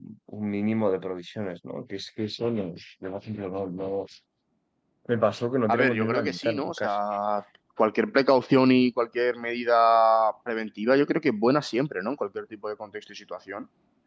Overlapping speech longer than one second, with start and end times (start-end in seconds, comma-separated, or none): 5.7-7.0